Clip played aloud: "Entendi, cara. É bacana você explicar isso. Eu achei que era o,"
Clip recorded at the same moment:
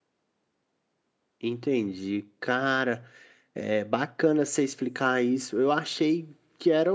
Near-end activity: none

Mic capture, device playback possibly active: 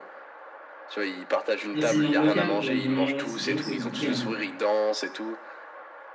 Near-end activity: present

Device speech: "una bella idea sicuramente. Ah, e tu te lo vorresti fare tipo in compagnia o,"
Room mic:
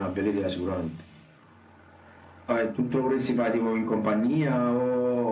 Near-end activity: none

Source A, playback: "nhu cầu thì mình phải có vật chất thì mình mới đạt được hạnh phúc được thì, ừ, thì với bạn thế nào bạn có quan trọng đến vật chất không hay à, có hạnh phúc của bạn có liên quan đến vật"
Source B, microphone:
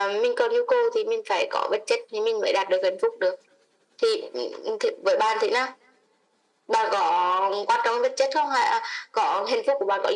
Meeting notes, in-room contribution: none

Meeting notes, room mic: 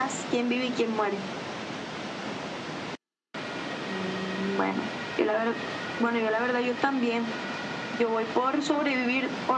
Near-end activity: none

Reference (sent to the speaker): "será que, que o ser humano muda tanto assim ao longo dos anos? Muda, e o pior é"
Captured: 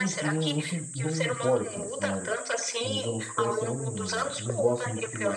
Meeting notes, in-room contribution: present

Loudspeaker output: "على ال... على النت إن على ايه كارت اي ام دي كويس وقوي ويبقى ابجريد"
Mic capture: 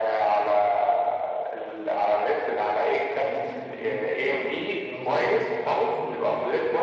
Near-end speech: present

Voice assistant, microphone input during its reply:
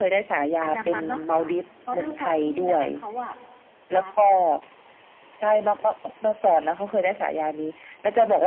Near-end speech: present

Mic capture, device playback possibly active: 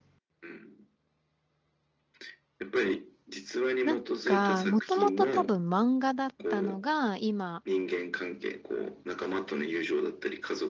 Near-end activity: present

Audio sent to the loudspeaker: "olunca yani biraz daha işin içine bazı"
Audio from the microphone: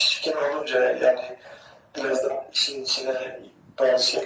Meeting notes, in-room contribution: none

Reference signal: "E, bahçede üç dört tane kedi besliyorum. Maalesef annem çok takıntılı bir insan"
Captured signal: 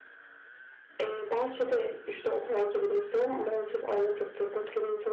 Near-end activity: none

